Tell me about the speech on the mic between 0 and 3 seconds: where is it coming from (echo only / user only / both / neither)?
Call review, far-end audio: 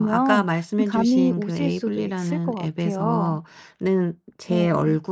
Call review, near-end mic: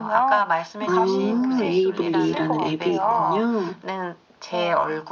both